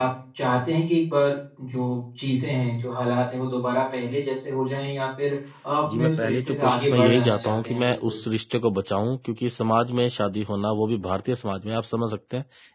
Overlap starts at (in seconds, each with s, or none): 5.9 s